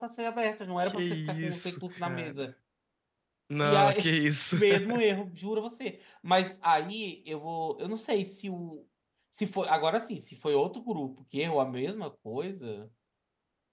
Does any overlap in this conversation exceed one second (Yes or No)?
Yes